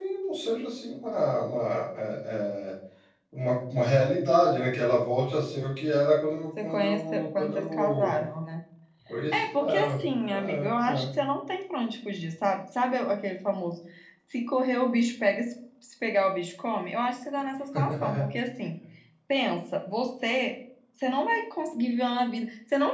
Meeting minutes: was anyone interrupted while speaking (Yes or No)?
Yes